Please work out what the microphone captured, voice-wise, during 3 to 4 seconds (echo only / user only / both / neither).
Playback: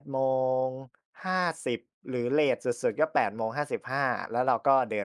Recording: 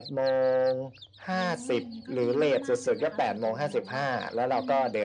both